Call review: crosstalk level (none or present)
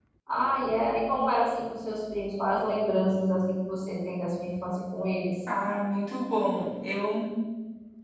none